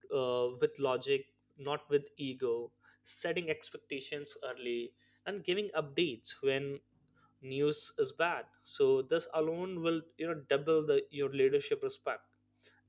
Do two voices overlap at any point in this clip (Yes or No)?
No